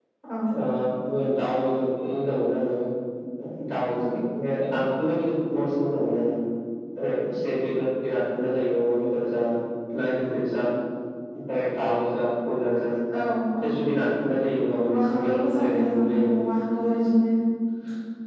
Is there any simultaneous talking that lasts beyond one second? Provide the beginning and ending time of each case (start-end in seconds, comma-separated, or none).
14.8-16.3